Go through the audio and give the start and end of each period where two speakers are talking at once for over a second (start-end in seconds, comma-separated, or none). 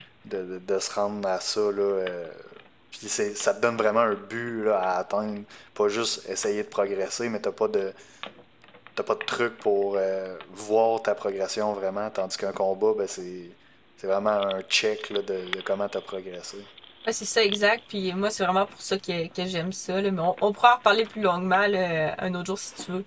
none